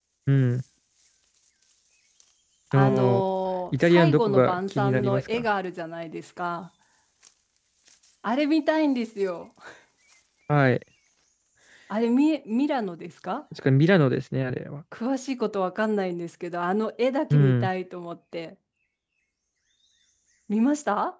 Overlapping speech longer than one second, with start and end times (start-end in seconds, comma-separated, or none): 3.7-5.5